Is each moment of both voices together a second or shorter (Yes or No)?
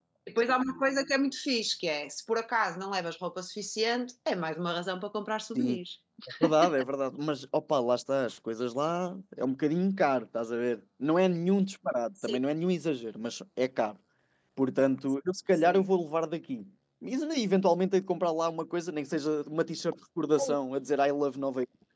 Yes